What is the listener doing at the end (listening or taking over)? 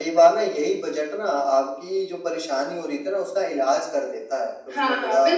taking over